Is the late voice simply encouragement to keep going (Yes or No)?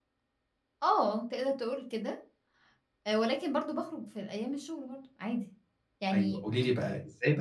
No